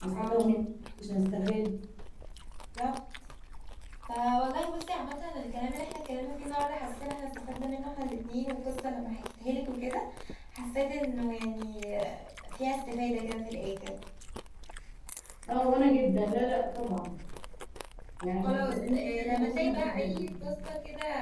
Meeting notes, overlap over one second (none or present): present